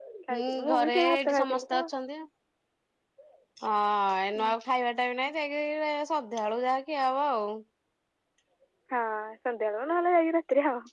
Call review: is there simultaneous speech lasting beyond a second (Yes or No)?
Yes